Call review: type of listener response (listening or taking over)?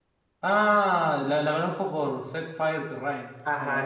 taking over